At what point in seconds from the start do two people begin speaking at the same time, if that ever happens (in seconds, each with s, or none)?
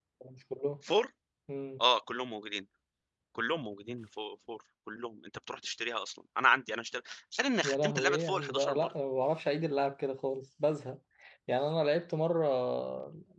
7.6 s